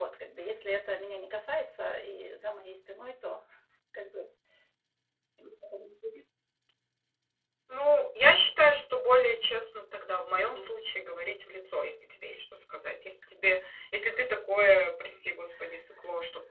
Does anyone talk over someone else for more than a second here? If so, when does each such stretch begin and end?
none

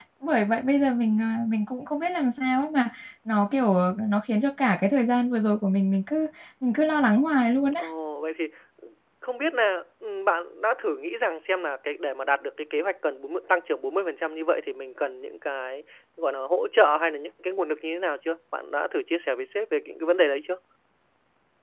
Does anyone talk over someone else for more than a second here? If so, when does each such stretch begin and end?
none

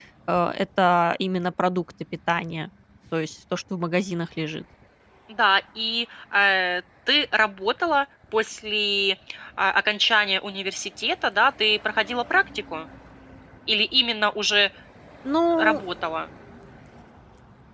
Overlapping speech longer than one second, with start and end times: none

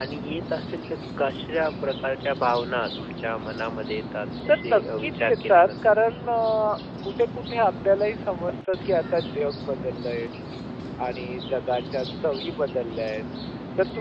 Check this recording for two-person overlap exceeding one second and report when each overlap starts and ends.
4.5-5.8

